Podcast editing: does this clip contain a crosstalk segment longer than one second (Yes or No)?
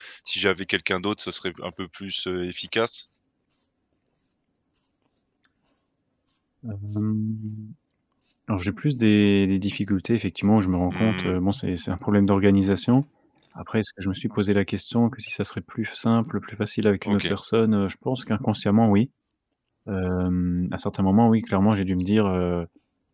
No